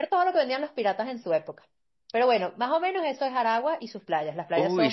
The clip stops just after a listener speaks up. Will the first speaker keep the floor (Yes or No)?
No